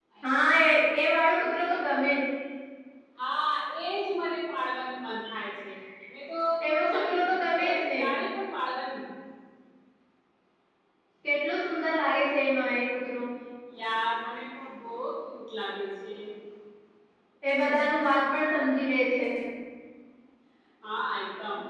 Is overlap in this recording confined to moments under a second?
No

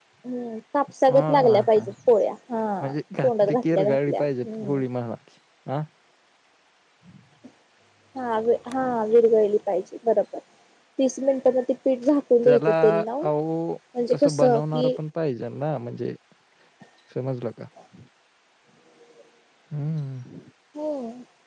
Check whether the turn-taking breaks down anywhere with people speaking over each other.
Yes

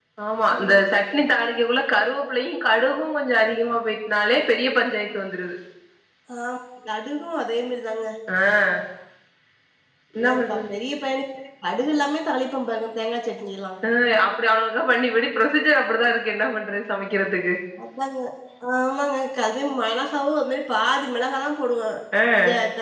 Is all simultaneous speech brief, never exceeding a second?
Yes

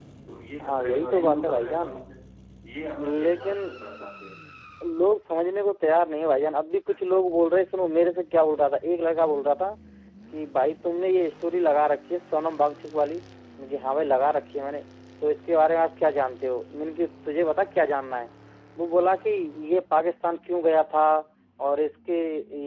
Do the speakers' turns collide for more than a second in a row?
Yes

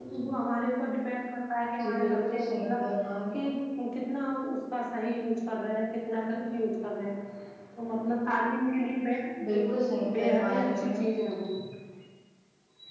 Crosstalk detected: Yes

